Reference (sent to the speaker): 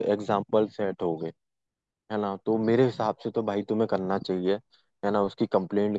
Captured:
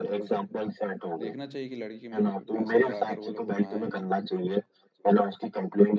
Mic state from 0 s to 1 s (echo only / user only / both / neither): echo only